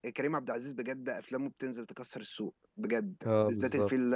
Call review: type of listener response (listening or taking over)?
listening